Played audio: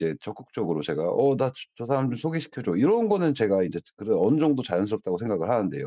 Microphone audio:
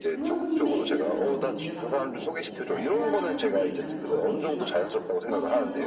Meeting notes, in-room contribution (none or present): present